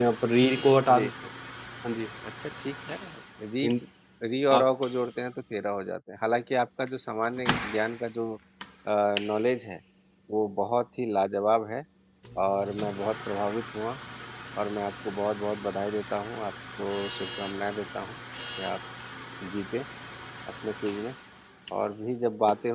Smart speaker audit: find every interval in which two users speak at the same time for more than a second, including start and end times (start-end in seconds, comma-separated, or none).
none